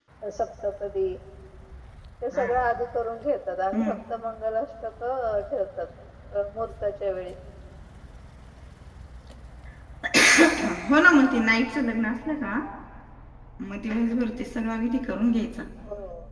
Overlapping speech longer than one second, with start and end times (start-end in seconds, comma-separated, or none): none